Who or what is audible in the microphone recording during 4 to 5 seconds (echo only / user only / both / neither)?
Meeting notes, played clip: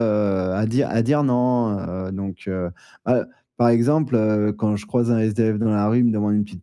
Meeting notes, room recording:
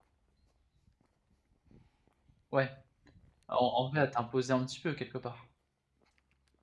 user only